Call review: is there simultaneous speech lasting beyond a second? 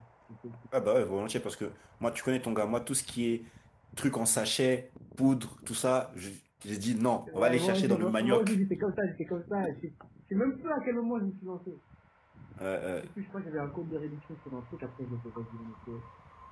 Yes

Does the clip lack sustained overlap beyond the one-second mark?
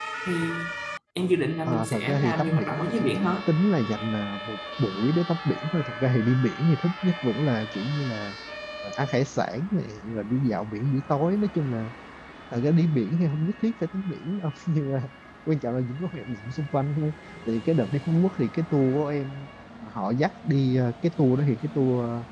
No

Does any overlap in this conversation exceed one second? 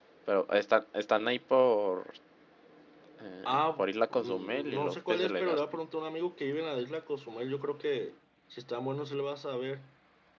Yes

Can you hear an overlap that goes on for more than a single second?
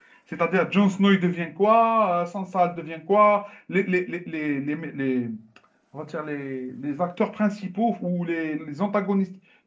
No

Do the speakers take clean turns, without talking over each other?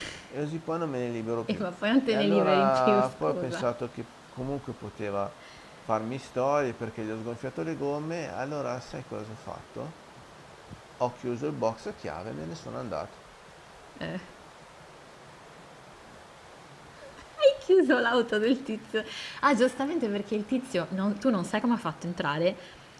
No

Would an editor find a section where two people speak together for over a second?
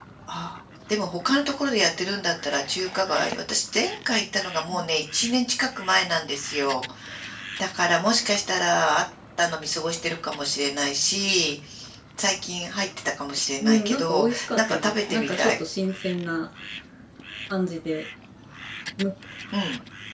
Yes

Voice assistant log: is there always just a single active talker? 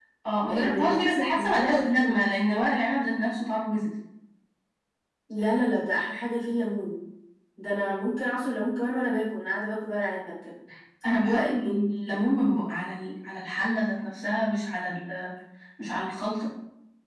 No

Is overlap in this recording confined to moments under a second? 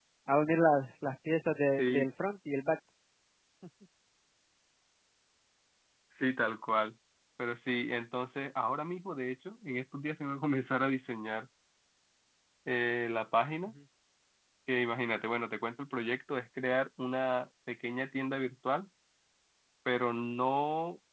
Yes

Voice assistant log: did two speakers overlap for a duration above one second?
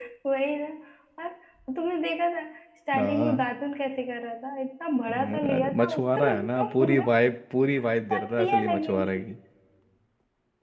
Yes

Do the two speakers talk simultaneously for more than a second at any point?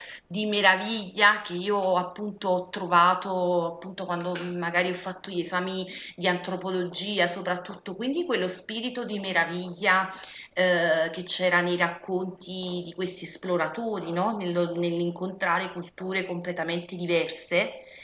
No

